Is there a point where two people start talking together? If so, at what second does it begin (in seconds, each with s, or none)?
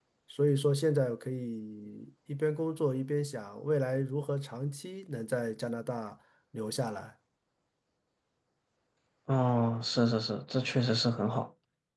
none